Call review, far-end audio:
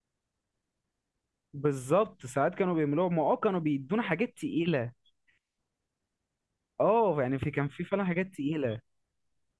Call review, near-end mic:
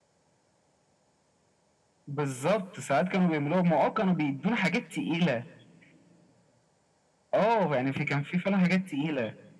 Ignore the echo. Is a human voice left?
No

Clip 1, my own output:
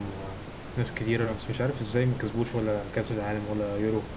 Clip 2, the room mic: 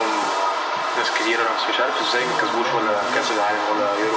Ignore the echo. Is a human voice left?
Yes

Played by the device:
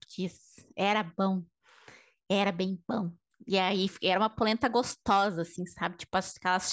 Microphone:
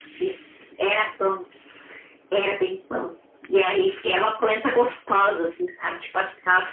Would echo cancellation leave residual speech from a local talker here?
No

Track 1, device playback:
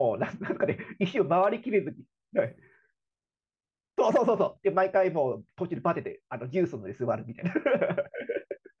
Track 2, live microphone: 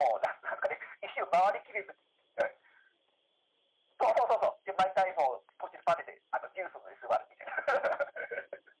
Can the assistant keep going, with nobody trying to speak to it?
Yes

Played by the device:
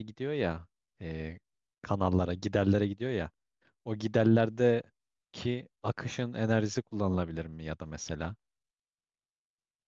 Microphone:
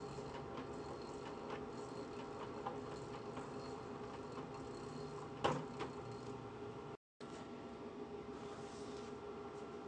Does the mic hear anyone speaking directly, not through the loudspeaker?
No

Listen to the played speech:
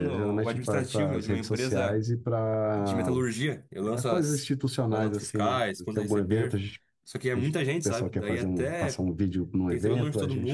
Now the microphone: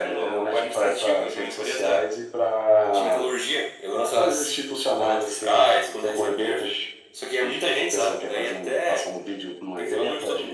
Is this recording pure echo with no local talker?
Yes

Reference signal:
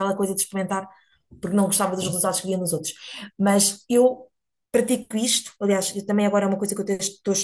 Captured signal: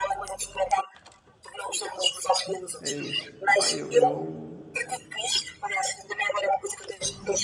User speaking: Yes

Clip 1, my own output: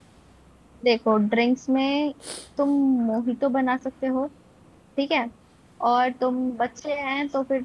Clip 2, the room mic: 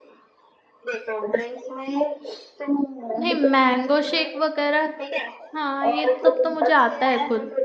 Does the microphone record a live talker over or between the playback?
Yes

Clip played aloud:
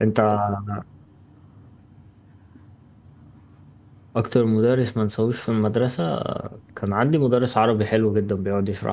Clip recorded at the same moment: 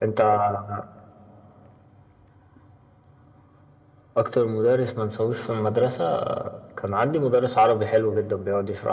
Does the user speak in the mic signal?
No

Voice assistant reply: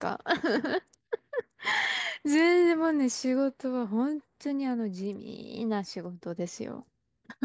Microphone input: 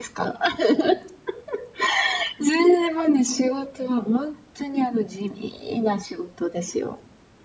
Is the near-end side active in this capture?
No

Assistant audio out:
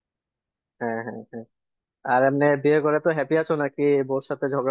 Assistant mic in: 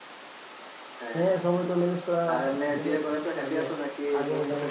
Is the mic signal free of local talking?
No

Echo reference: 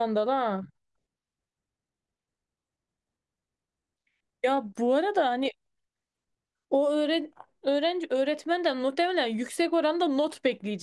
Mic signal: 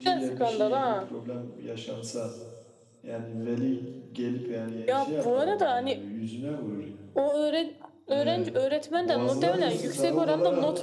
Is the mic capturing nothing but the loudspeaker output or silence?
No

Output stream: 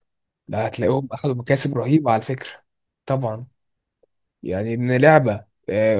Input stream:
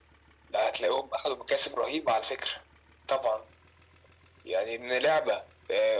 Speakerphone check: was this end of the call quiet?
Yes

